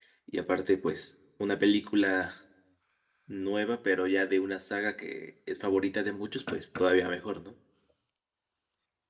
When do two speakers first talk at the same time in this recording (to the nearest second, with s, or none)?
none